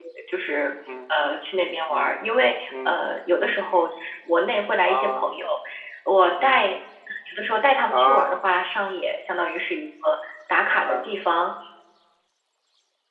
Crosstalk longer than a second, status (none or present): none